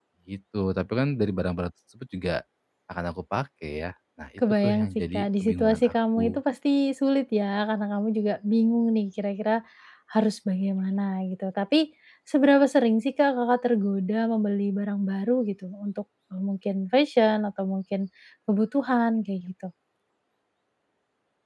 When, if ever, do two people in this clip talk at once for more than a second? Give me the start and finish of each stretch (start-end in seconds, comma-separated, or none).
4.4-6.4